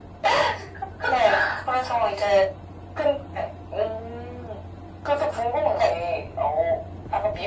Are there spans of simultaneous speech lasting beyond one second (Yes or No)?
No